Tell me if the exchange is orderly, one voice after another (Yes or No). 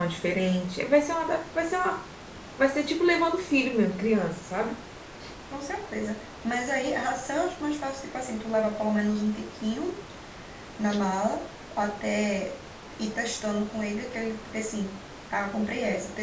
Yes